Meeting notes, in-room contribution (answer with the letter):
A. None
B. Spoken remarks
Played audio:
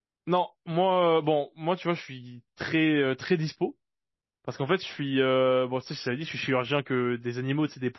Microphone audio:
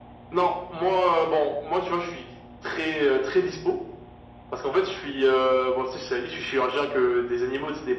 A